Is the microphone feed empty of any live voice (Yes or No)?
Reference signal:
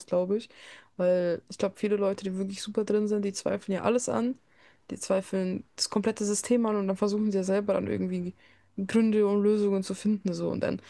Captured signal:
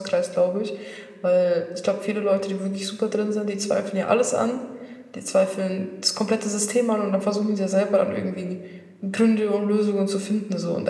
Yes